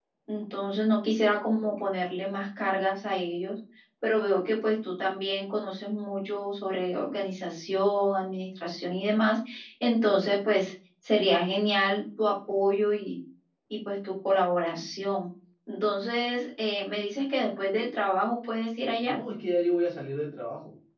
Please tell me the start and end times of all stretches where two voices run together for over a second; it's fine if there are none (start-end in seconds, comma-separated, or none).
none